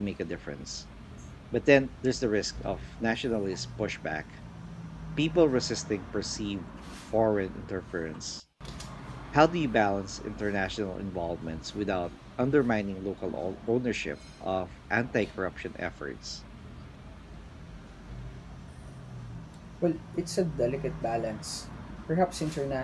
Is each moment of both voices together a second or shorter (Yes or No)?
Yes